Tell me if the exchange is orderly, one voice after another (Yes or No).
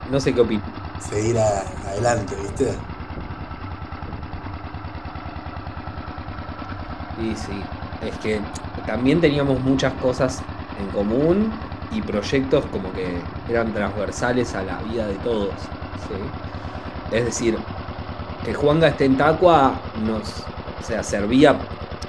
Yes